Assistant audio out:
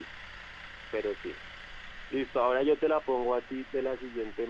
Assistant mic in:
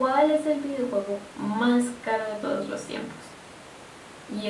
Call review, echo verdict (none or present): none